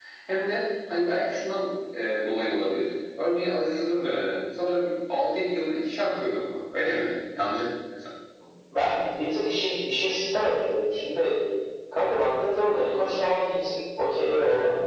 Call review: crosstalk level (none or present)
none